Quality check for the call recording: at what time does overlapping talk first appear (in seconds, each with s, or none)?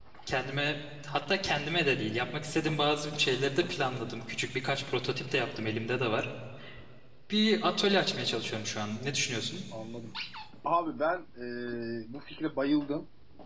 none